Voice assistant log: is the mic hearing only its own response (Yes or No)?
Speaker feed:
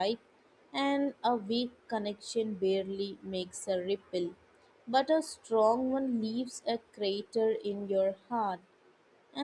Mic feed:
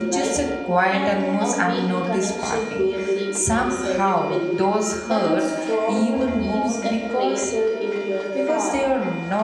No